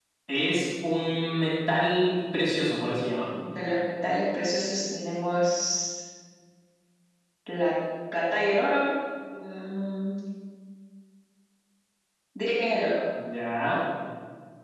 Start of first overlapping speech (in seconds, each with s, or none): 1.1 s